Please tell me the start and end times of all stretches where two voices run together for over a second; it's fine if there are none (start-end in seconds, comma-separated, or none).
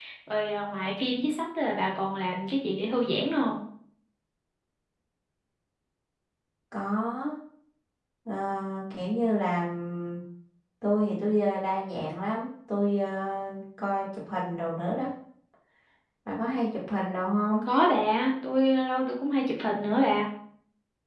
none